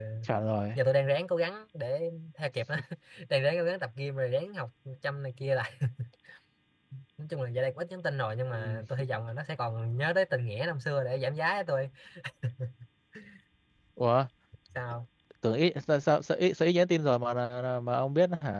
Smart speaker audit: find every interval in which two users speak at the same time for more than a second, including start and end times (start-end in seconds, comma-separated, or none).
none